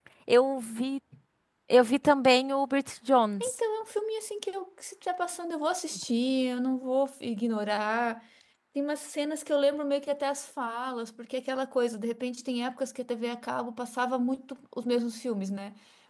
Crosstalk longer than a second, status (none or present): none